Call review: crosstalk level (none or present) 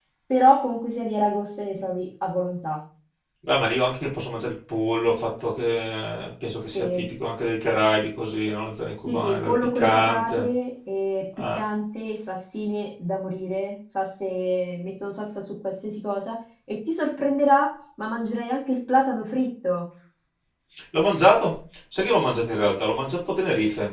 present